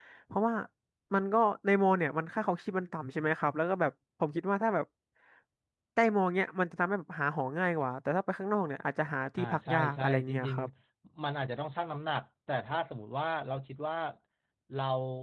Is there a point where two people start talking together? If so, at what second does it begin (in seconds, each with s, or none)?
9.4 s